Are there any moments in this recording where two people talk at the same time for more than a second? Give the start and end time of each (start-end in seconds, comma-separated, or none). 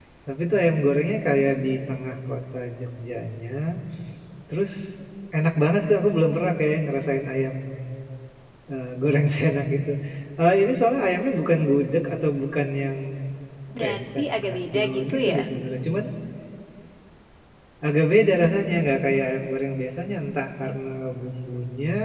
13.8-15.4